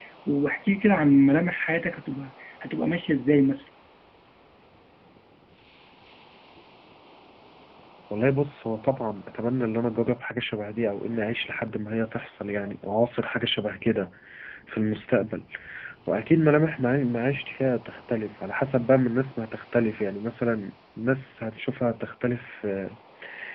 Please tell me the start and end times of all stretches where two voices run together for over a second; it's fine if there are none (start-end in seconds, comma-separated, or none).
none